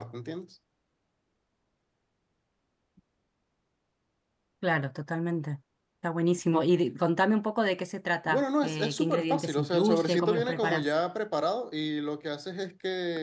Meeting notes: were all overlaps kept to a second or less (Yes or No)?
No